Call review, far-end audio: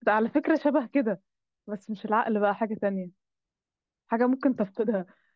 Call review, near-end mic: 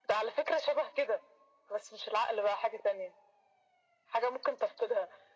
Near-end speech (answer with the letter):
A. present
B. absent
B